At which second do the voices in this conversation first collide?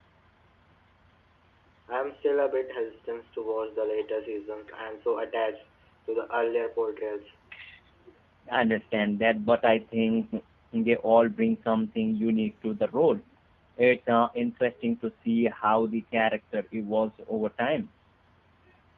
none

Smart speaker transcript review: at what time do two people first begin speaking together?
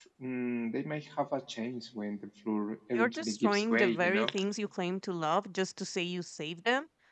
2.9 s

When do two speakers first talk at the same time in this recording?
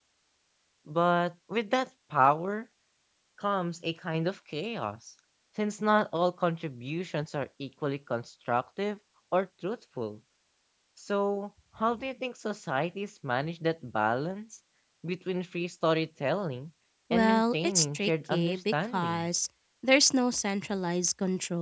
17.1 s

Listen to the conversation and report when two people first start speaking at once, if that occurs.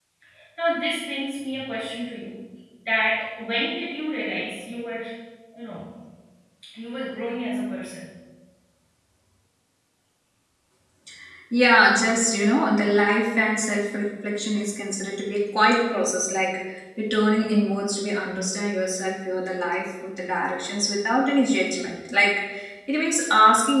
none

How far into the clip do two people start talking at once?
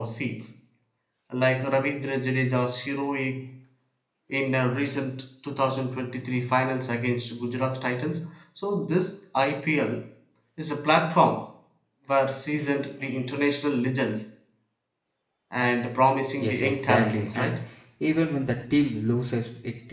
16.4 s

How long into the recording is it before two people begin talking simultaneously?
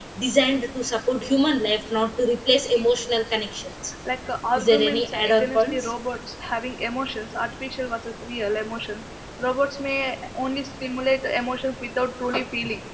4.5 s

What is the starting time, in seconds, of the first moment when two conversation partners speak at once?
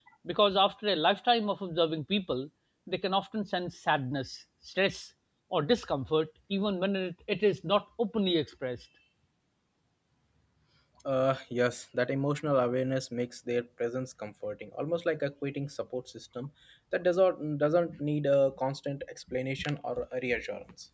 none

